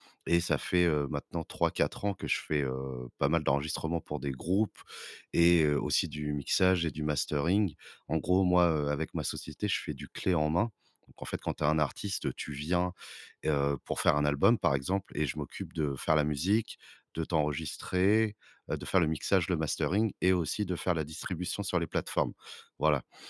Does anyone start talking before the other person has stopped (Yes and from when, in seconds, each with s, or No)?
No